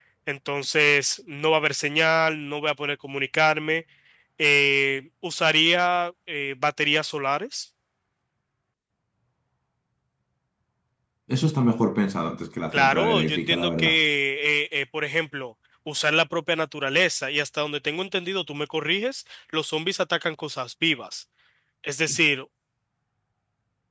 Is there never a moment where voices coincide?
No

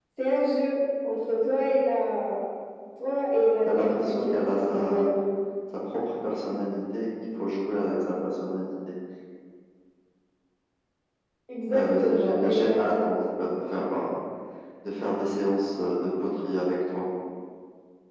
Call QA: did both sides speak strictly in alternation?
No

